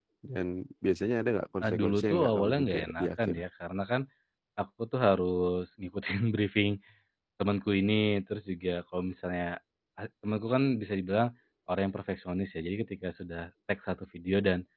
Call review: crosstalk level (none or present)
present